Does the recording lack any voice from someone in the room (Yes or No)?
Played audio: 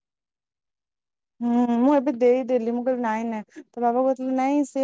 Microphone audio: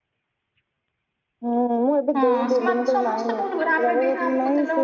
No